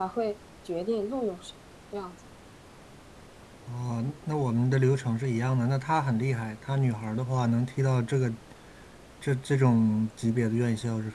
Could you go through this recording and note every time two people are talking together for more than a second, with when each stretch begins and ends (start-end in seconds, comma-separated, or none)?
none